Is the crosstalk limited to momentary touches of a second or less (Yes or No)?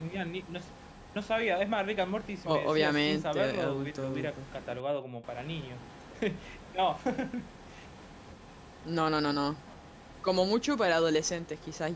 No